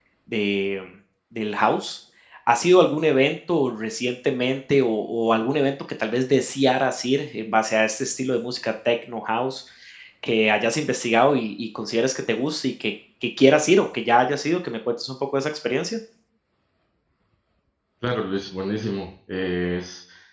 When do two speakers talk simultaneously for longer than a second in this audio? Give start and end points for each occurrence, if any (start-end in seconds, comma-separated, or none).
none